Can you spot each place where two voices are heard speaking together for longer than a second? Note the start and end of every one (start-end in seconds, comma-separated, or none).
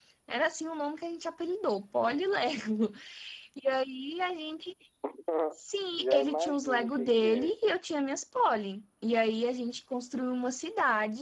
6.0-7.5